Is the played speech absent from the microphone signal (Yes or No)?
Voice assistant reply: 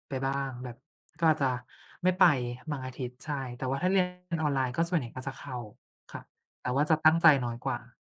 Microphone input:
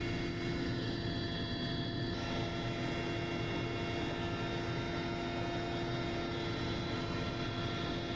Yes